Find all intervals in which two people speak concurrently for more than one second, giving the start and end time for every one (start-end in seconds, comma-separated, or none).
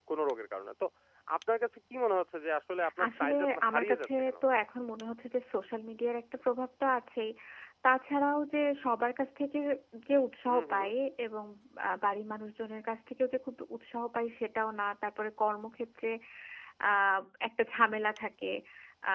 3.0-4.3